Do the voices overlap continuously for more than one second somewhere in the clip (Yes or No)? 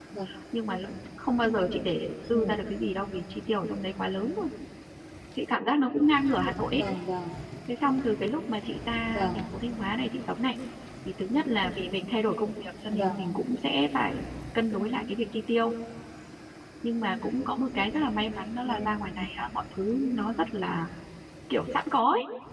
No